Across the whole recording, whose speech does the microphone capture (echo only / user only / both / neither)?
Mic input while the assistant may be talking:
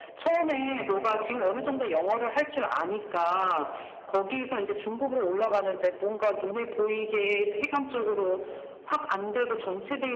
both